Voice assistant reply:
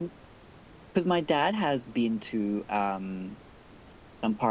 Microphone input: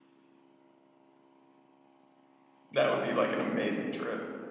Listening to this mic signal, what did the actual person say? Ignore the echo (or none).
that would be like an amazing trip.